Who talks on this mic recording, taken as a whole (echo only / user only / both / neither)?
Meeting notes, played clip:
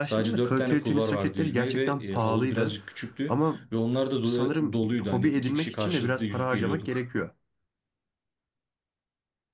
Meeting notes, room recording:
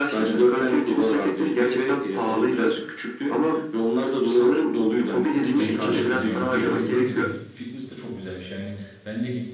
both